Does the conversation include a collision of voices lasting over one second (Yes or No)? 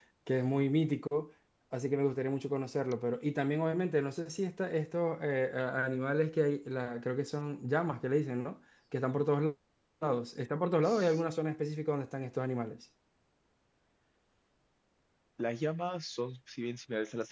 No